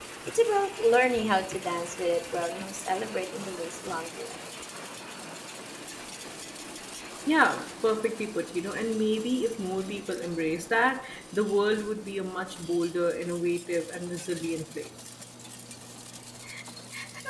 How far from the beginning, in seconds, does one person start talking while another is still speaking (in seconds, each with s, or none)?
none